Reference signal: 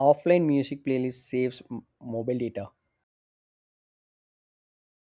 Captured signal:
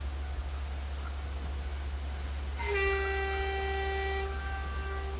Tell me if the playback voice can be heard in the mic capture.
No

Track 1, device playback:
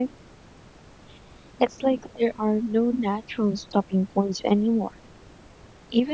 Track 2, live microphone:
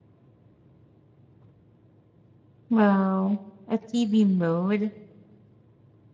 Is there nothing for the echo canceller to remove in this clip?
Yes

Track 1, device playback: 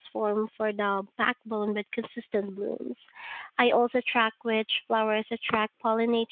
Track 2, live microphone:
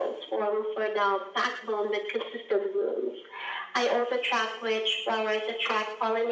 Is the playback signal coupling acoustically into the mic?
Yes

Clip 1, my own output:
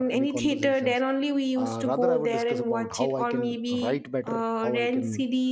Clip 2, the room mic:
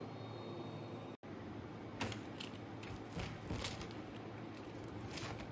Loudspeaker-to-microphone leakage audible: No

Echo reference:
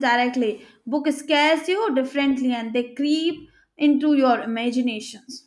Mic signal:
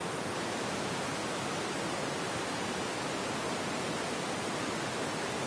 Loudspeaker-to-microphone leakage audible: No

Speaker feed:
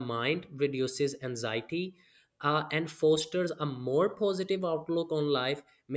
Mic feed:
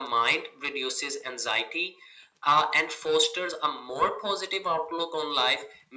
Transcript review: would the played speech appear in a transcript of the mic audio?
Yes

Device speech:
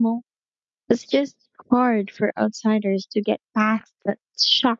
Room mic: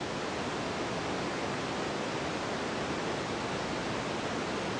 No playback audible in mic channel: Yes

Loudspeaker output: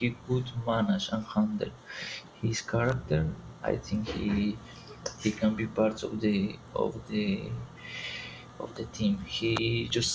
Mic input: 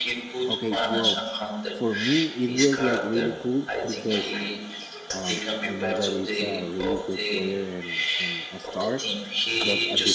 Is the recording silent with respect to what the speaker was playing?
No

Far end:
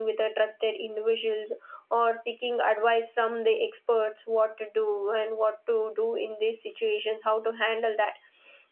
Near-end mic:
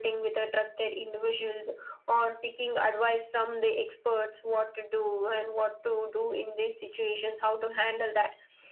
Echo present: Yes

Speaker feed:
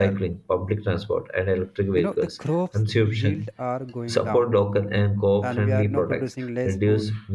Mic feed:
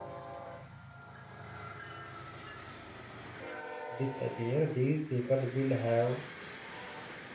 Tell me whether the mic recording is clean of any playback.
Yes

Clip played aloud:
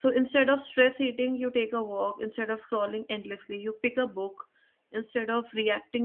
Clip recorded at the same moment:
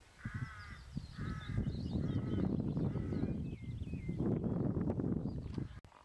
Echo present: No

